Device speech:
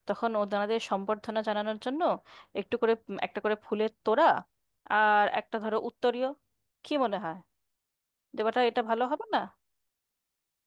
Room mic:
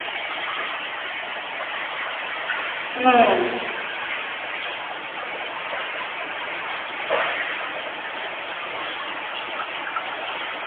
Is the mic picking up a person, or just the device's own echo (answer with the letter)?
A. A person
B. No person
A